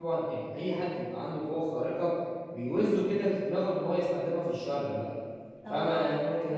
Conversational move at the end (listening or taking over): listening